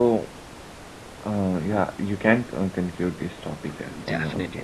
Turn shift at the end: Yes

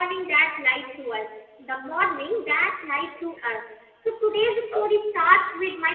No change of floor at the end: Yes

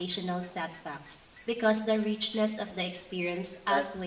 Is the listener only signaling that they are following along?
No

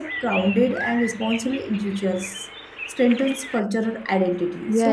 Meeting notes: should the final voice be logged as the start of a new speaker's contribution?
Yes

